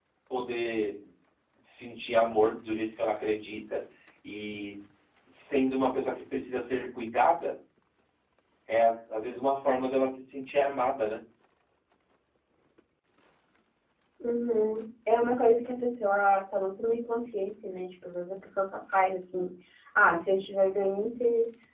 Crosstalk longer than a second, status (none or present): none